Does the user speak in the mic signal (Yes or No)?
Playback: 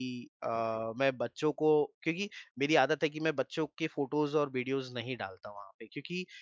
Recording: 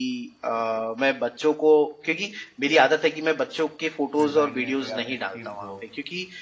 Yes